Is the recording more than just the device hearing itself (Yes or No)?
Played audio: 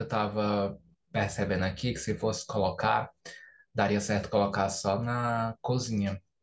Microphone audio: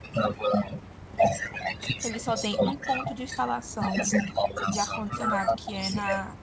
Yes